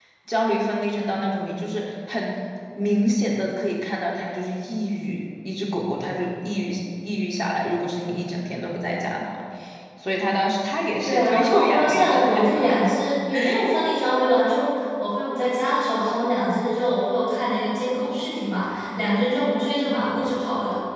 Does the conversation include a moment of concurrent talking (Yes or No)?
Yes